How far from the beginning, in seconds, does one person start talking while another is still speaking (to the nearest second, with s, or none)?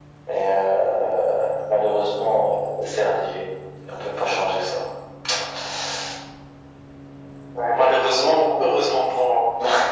none